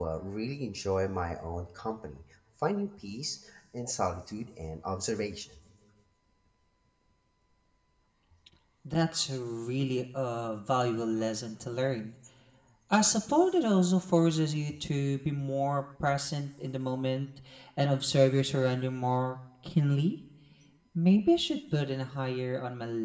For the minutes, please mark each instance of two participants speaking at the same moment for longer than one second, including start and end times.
none

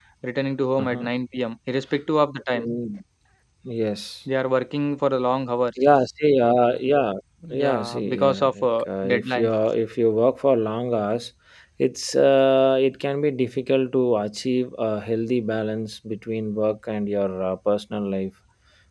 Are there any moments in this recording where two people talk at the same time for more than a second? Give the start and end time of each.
7.6-9.5

